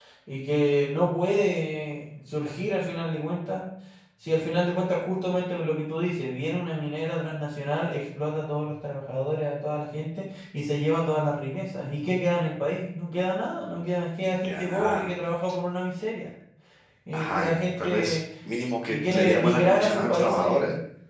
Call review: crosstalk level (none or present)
present